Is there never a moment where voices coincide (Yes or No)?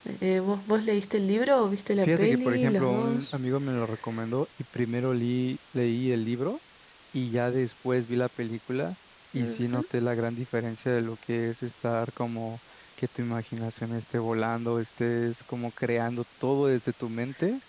No